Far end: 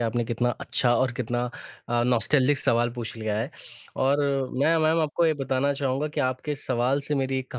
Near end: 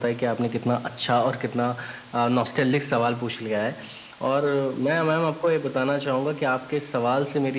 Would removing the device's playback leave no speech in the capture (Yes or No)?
Yes